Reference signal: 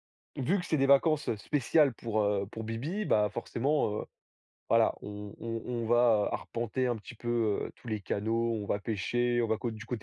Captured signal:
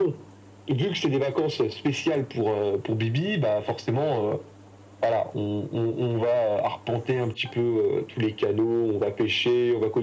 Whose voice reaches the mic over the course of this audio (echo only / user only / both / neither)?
echo only